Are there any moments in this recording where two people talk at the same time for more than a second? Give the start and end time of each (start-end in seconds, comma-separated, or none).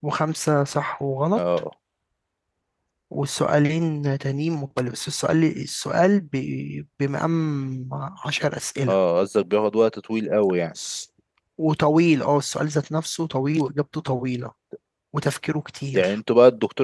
none